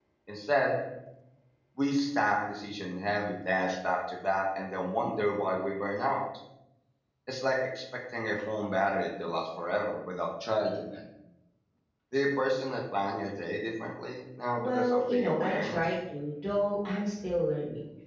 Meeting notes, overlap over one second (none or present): present